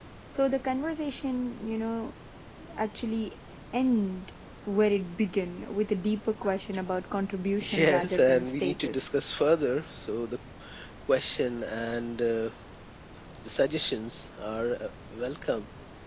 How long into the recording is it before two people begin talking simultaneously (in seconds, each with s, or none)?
7.6 s